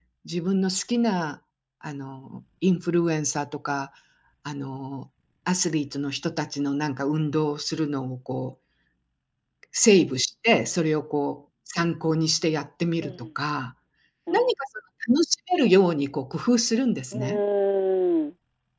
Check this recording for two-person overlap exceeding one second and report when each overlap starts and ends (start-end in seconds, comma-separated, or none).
none